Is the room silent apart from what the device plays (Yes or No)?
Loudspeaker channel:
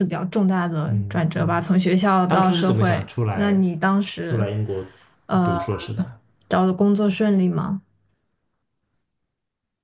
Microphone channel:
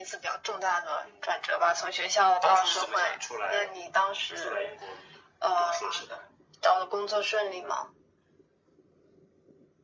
Yes